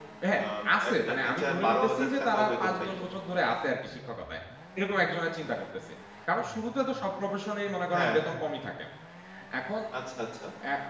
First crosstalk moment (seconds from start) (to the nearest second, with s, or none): 1 s